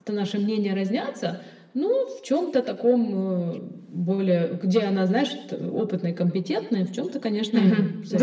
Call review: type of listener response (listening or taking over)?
taking over